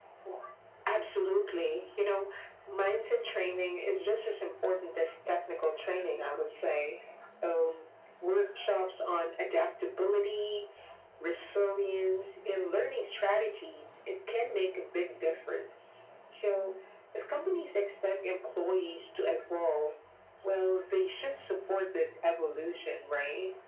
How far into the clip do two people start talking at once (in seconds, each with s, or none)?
none